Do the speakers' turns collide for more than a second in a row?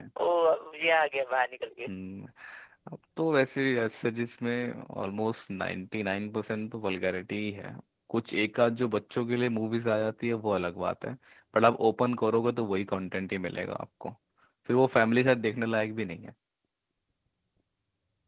No

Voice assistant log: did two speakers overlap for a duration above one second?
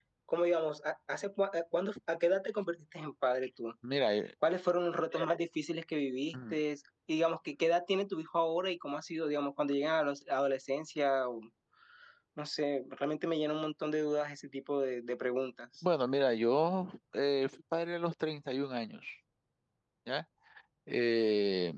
No

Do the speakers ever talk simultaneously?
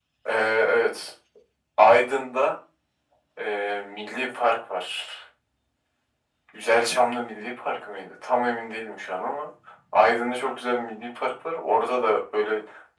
No

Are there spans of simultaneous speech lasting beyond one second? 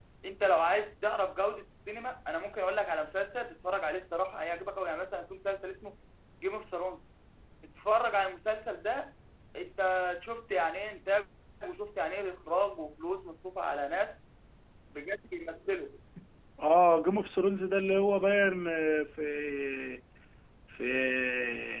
No

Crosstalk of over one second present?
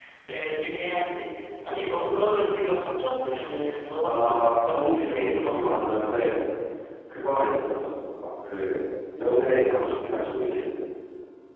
Yes, from 4.0 s

